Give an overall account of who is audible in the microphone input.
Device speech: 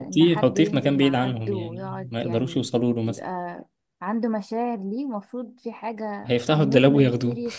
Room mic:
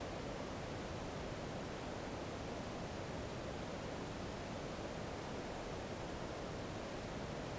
neither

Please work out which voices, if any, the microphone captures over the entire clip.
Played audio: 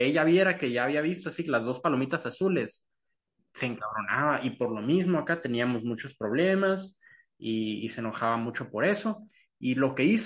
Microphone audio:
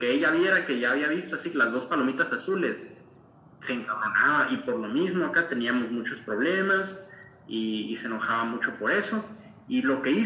echo only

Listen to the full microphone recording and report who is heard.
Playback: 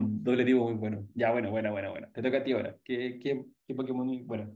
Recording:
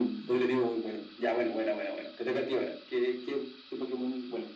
echo only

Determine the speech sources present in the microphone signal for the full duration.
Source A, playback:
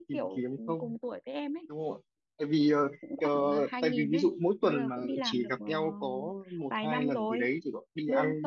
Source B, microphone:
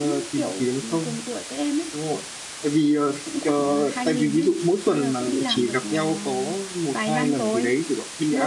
echo only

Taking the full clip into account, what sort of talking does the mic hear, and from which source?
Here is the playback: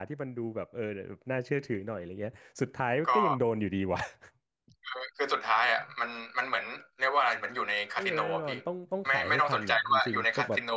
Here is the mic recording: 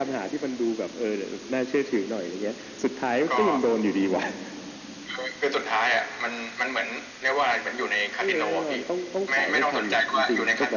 echo only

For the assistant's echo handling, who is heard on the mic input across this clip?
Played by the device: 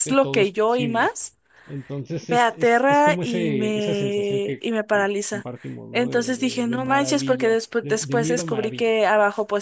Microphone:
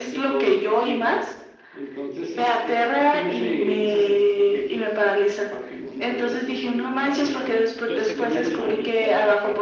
both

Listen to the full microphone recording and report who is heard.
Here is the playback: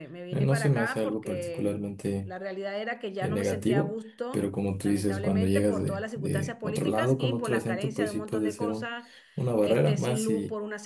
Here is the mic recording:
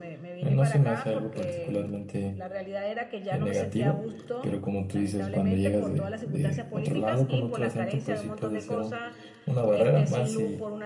echo only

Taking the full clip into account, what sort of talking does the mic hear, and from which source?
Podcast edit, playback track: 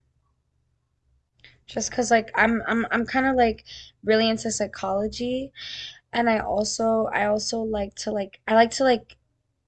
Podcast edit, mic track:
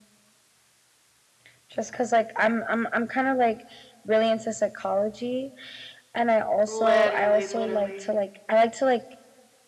both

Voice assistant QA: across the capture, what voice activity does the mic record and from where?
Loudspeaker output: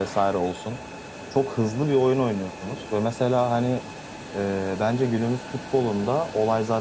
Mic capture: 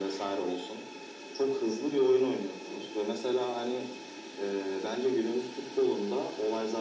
echo only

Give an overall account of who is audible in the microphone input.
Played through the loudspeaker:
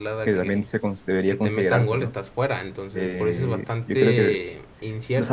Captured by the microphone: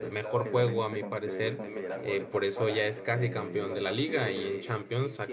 both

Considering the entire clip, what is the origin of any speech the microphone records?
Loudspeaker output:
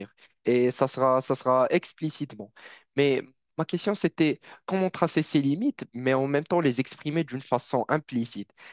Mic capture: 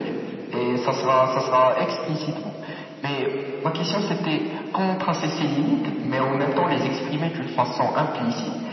echo only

